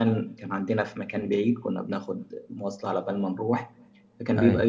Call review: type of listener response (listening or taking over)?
listening